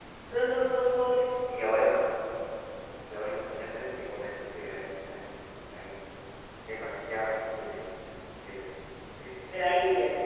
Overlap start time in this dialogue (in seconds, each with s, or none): none